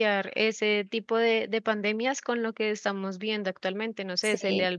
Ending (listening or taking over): listening